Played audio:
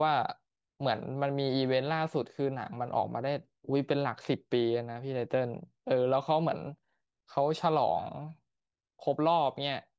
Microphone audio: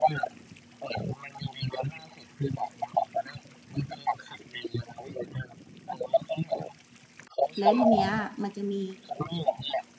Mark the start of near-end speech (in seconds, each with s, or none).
7.5 s